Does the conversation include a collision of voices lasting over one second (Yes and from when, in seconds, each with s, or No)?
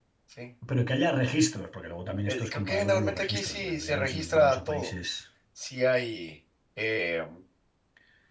Yes, from 2.3 s